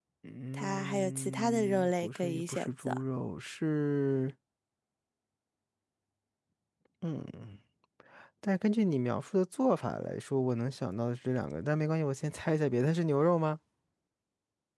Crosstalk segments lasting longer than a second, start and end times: 0.5-3.0

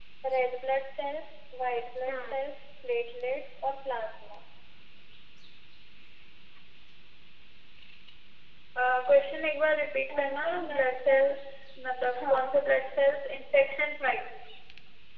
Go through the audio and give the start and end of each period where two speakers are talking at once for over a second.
10.1-11.3

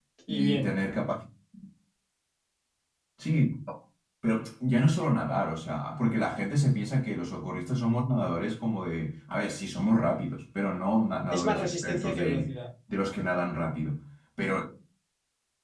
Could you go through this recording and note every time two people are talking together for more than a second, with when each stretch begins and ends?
11.3-12.5

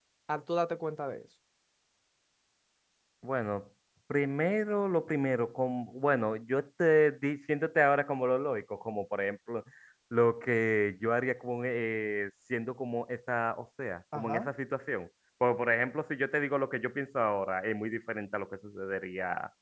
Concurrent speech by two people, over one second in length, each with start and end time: none

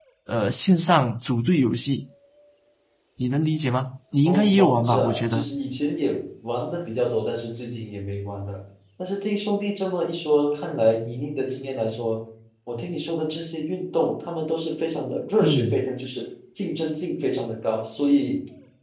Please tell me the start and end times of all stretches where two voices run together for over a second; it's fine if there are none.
4.2-5.5

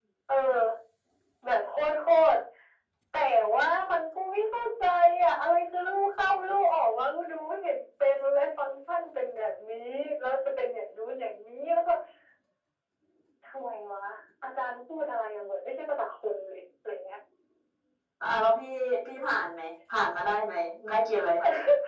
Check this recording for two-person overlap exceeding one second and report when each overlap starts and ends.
none

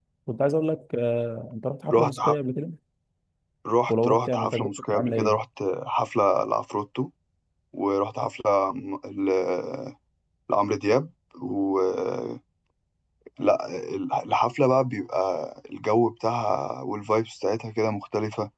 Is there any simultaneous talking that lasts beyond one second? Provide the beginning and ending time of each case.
3.9-5.4

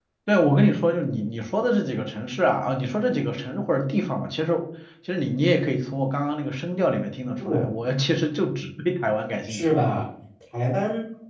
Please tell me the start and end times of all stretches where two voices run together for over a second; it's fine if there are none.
none

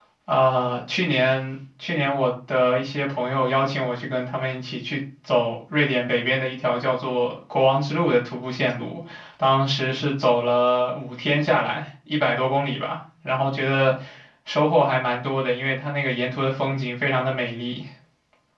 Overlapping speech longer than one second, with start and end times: none

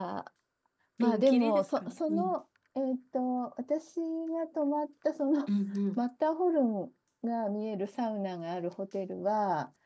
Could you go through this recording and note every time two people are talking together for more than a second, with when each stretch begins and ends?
1.0-2.3

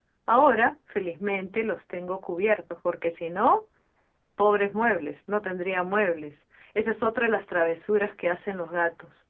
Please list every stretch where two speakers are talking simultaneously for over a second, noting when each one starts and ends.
none

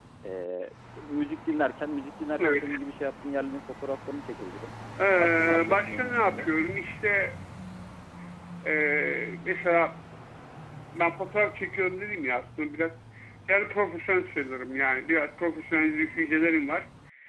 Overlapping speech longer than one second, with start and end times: 5.2-6.5

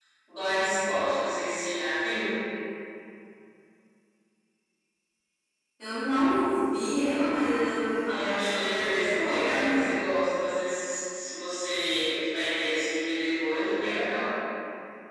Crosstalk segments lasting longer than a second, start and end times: 8.1-9.8

